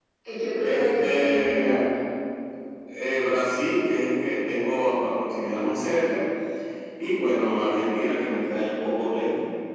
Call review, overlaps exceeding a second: present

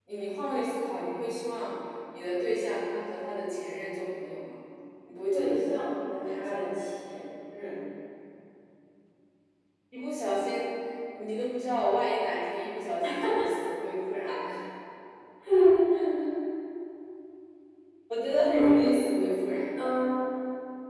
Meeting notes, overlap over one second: present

